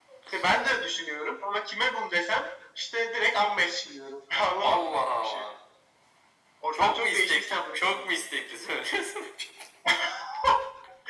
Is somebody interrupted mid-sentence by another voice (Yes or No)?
Yes